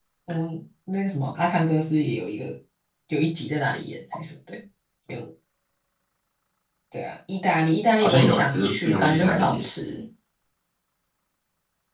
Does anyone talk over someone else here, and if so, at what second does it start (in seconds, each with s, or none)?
8.0 s